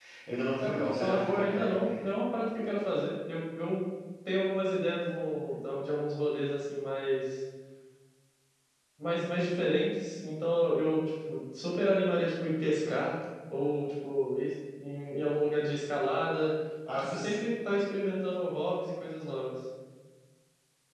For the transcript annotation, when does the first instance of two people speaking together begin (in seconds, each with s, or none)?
0.6 s